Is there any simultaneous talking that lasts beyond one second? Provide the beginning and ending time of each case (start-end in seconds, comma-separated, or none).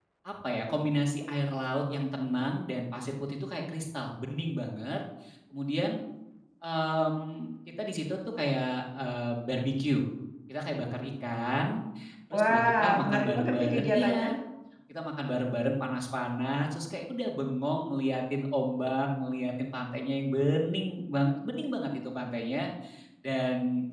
12.3-14.2